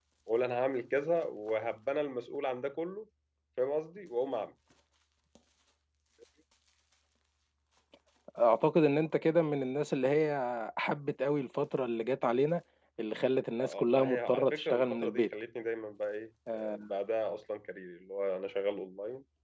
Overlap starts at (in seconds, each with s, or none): 13.6 s